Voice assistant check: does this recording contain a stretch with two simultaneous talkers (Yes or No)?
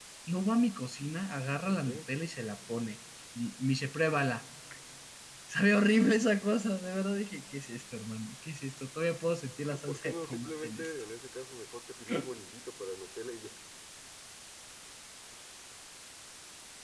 Yes